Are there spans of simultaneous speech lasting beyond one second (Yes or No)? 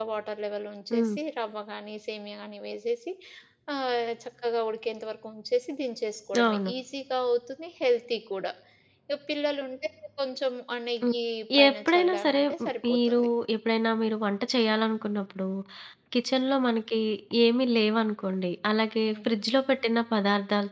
Yes